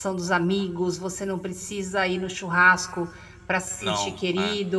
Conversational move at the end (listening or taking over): listening